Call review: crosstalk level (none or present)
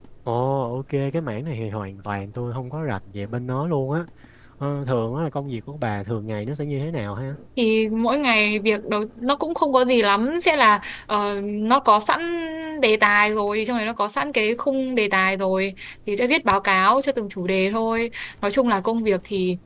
none